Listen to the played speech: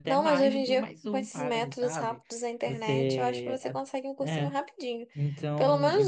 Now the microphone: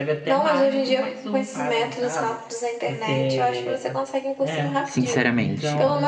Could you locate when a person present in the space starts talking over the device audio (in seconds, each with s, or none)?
4.8 s